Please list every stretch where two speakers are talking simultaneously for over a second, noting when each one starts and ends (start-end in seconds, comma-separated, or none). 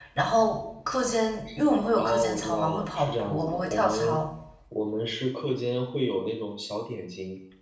2.0-4.2